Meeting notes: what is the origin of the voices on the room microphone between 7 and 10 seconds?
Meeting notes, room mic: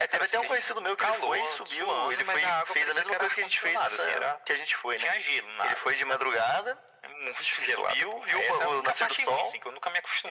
echo only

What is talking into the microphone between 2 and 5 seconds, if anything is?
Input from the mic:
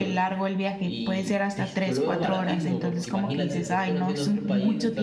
both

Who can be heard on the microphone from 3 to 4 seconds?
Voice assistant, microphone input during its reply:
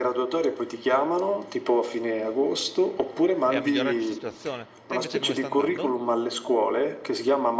both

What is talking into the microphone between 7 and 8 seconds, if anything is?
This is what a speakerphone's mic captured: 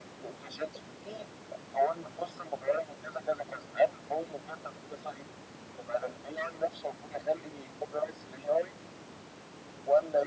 echo only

